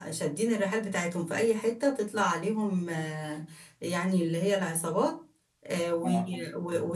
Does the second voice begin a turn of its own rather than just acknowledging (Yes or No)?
No